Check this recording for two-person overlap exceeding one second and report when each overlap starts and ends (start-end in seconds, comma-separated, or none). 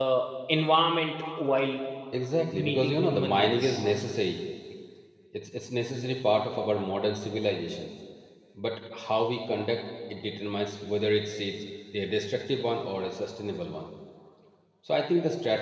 2.5-3.9